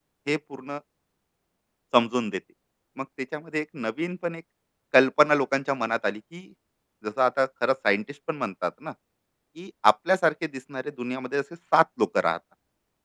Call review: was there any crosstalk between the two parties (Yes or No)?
No